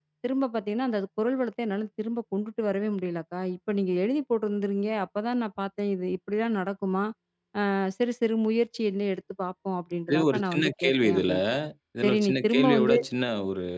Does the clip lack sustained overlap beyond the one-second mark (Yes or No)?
No